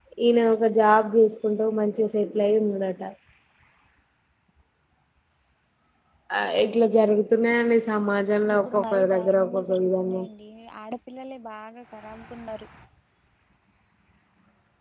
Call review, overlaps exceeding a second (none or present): present